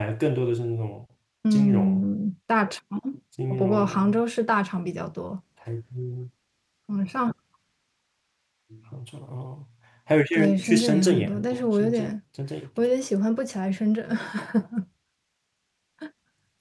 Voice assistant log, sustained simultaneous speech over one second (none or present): present